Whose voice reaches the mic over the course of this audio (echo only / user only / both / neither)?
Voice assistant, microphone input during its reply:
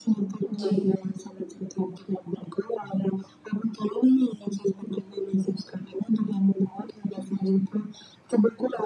both